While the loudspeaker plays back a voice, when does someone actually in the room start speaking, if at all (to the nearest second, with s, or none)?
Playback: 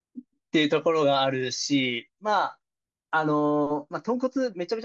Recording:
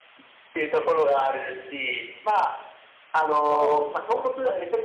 3 s